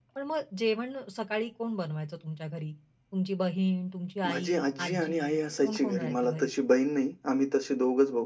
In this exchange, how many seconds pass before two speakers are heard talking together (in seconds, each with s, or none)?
4.2 s